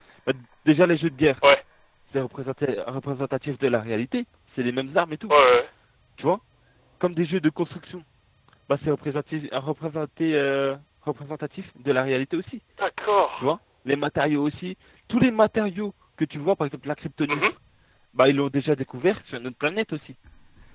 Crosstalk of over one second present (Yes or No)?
No